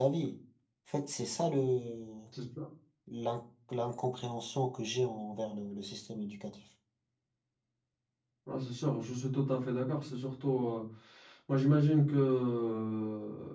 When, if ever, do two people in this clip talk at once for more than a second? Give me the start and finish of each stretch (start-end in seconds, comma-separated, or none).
none